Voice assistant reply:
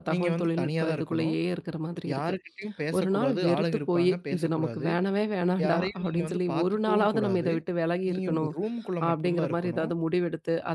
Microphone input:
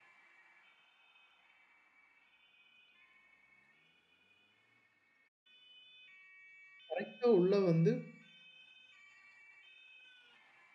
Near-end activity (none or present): present